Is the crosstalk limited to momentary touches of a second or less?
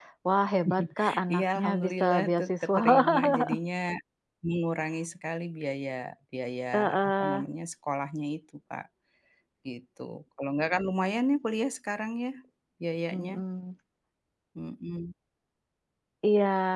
No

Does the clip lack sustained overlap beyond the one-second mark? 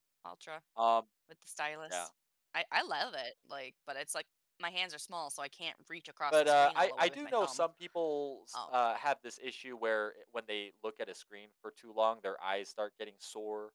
No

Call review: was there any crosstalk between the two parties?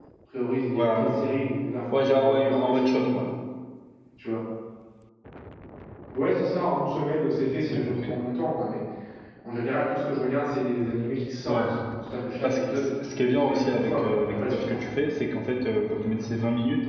Yes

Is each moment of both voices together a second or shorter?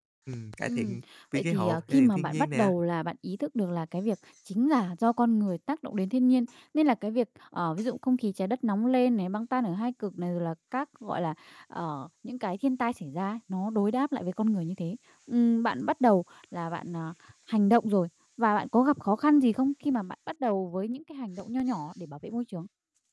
No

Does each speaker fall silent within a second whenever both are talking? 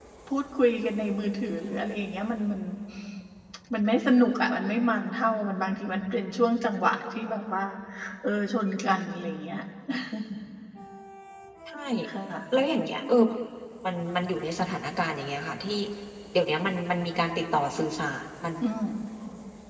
Yes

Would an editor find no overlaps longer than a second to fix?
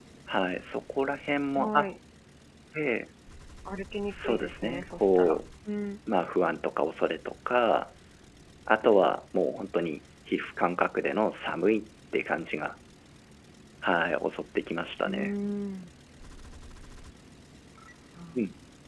No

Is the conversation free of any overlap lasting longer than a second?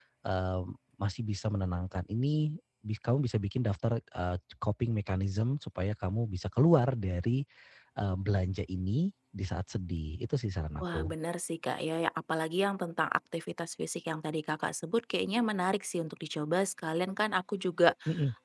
Yes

